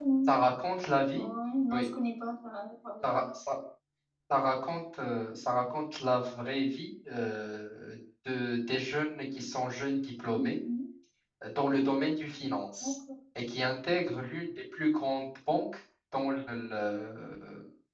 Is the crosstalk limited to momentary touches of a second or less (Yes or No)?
Yes